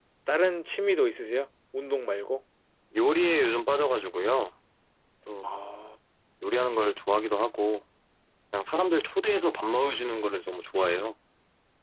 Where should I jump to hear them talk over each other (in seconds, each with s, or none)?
none